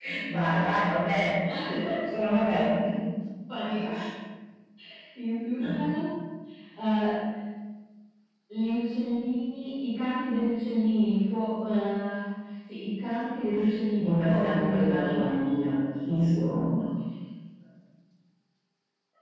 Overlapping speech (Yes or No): Yes